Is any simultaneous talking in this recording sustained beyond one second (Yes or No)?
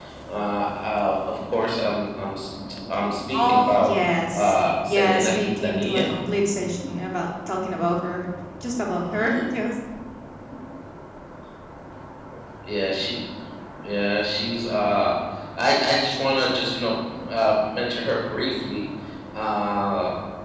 Yes